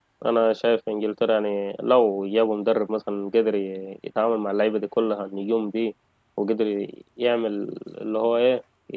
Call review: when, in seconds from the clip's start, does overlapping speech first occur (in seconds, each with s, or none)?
none